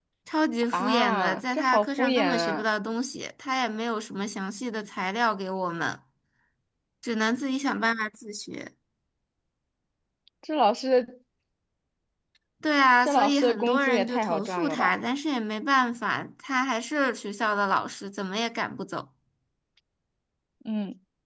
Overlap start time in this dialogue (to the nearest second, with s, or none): 1 s